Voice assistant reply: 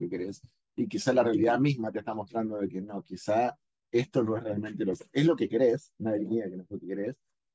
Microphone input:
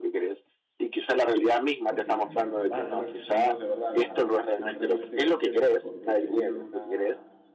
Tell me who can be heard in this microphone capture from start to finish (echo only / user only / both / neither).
both